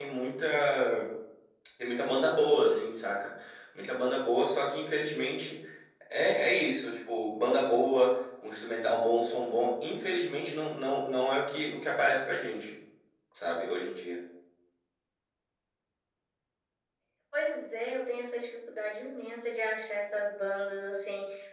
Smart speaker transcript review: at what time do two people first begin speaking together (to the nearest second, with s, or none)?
none